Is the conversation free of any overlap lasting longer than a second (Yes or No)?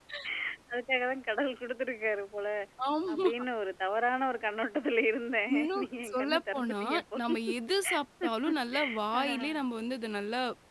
No